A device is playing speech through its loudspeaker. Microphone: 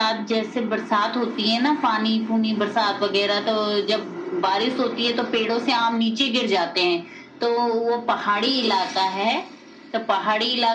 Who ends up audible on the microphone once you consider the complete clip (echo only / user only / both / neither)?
echo only